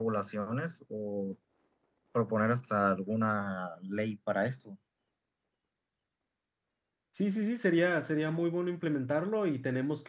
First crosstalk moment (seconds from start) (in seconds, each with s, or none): none